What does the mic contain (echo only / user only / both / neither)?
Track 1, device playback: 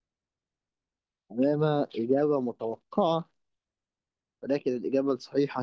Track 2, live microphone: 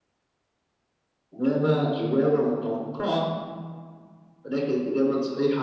echo only